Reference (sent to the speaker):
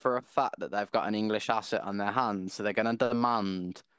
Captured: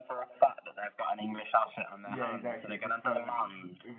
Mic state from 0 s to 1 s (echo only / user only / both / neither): echo only